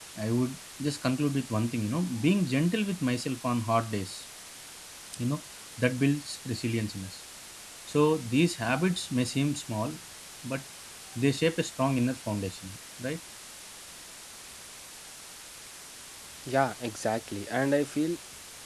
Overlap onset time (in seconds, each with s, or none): none